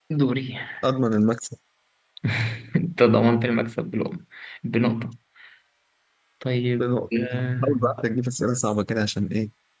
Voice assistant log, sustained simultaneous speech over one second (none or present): none